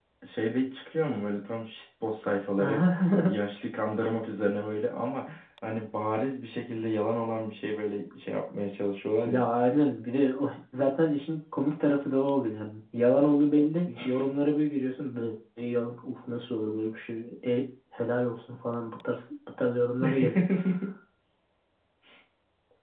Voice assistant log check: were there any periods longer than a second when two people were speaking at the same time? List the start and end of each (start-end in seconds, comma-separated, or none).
none